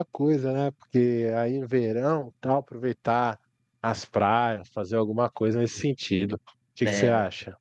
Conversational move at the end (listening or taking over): taking over